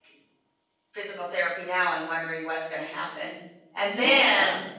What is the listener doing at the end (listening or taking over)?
listening